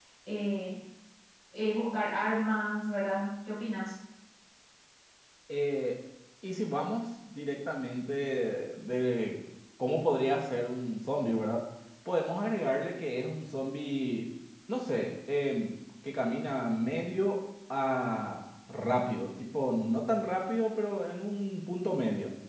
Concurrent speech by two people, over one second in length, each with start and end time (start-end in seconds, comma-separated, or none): none